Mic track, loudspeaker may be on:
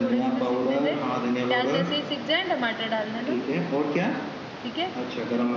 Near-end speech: present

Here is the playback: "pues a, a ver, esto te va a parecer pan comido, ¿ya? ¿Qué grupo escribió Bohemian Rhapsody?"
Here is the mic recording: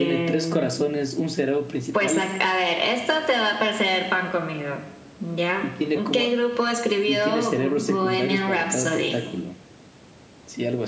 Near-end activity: present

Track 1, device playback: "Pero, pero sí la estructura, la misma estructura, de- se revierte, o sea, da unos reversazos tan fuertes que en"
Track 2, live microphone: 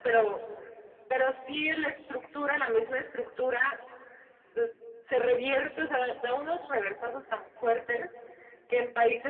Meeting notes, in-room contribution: none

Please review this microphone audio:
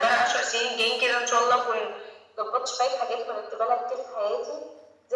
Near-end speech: none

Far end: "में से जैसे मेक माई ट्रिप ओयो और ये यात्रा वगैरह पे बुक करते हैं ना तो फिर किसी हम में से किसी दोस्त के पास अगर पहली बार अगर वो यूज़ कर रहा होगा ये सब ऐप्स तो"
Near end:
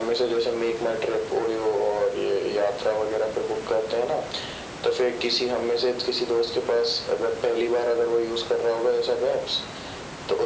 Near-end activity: none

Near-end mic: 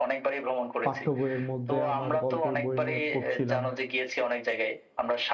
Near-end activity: present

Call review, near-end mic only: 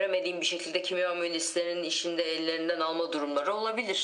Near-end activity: none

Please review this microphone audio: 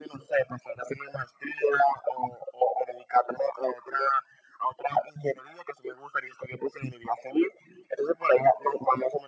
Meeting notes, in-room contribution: none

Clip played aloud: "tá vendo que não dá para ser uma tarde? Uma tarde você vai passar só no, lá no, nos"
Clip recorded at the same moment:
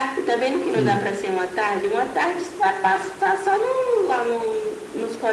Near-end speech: present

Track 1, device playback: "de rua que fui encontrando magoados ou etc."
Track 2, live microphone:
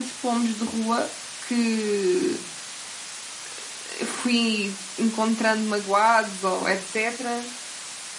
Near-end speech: none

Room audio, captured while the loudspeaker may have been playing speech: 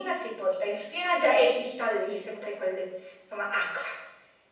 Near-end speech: none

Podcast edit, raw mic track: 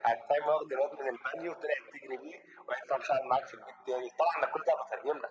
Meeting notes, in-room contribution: none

